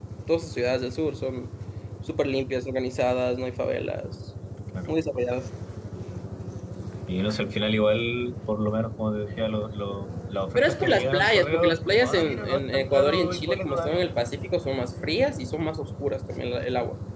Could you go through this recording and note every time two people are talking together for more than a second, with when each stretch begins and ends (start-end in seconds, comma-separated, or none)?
10.6-14.0